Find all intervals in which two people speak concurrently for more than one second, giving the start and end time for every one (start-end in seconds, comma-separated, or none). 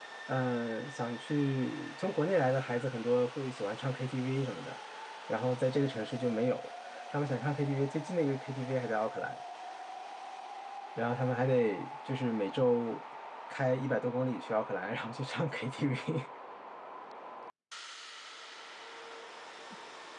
none